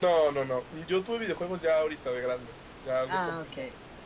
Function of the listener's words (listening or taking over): listening